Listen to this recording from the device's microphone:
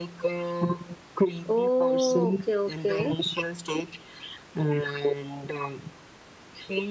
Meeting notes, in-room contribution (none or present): present